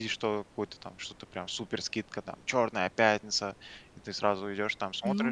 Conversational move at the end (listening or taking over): taking over